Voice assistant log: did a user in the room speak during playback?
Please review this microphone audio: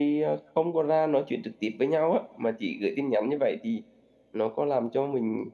Yes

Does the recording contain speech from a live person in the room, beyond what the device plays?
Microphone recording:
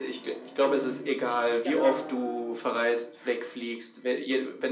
Yes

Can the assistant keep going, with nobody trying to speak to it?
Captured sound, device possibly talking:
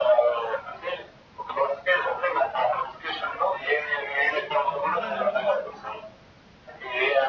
No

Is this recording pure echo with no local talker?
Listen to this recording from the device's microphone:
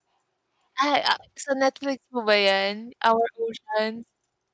No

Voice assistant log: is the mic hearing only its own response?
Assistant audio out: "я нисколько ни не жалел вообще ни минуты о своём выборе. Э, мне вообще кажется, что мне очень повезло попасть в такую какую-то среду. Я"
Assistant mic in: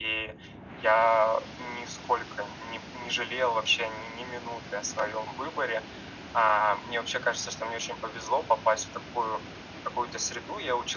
Yes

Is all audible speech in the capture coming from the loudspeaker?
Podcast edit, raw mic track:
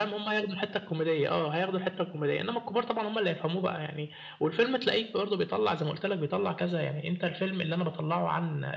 Yes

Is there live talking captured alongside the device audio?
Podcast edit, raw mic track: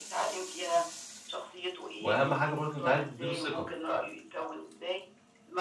Yes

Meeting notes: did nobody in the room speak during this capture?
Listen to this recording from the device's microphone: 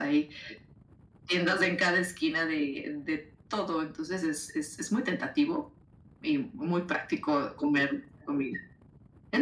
Yes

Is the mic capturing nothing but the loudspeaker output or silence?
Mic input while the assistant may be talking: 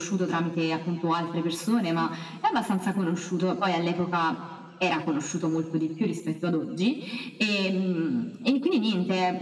Yes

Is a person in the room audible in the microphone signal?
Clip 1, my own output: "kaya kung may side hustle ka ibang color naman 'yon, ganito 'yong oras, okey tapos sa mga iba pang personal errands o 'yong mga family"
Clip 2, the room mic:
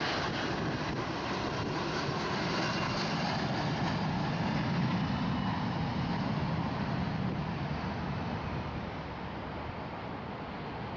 No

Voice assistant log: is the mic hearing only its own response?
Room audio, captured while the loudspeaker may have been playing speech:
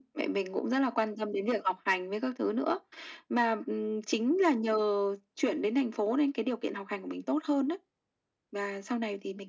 Yes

